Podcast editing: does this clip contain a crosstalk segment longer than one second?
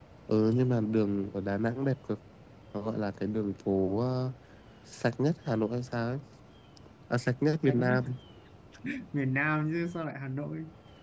No

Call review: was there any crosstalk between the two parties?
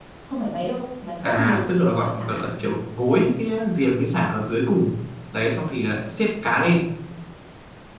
Yes, from 1.2 s

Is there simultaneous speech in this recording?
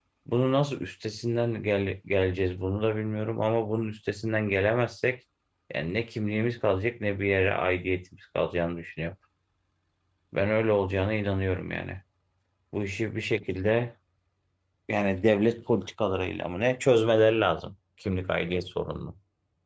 No

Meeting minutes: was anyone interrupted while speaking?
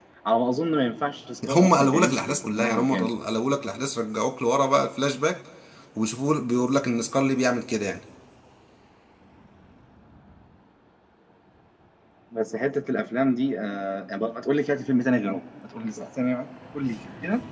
Yes, from 1.4 s

